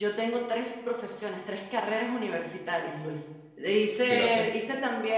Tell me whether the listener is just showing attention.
Yes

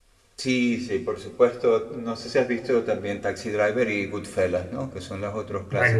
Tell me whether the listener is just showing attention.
No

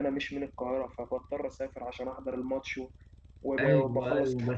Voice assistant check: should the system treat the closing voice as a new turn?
Yes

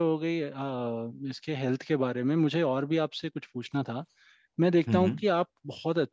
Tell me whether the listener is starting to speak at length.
No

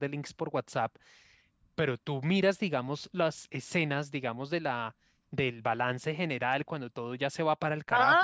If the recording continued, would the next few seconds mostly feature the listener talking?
Yes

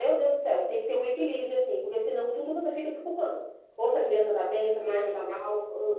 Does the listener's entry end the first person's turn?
No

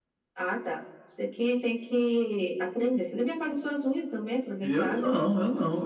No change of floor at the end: No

